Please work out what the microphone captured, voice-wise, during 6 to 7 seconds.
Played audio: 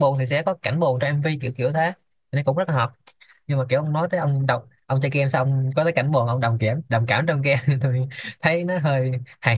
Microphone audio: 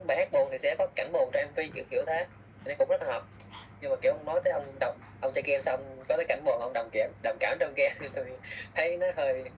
echo only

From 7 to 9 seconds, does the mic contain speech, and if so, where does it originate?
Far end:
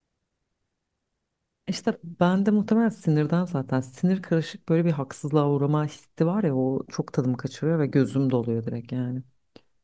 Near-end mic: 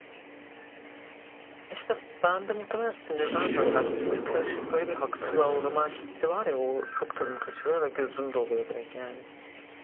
echo only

